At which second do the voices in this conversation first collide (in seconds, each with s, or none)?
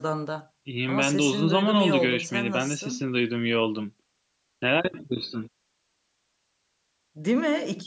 0.9 s